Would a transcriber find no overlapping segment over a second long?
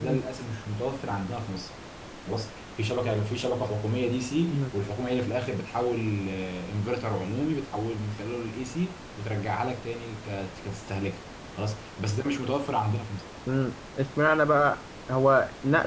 Yes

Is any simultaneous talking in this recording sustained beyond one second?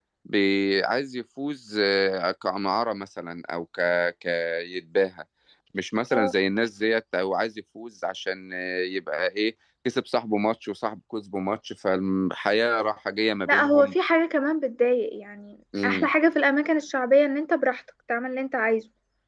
No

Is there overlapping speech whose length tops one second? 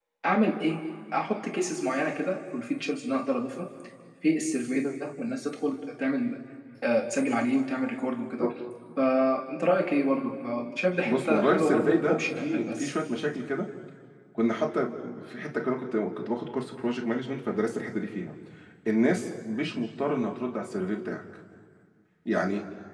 Yes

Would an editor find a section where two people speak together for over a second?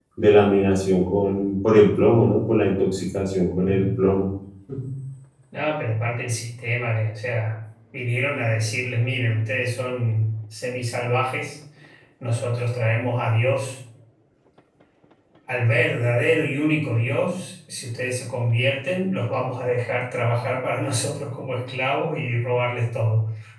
No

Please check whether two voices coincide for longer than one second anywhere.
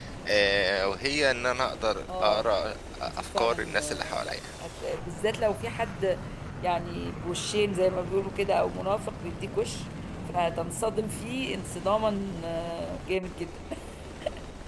Yes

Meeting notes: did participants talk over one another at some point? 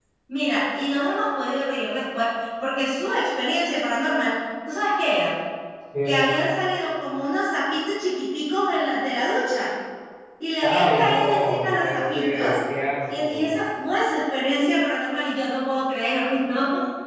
Yes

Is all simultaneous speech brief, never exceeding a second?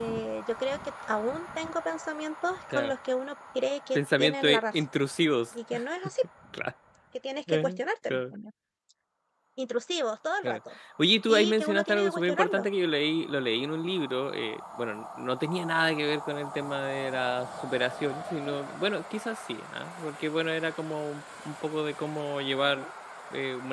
No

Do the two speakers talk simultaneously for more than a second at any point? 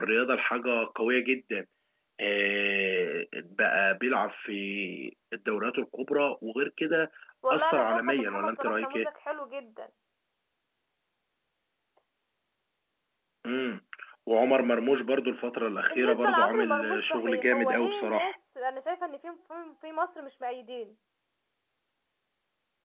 Yes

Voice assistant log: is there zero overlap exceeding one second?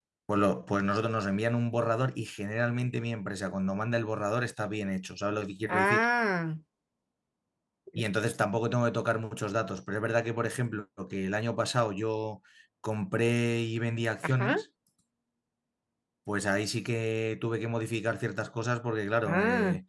Yes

